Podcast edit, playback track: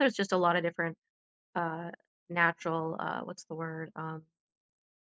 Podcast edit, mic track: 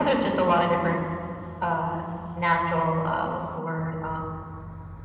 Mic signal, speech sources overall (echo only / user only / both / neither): echo only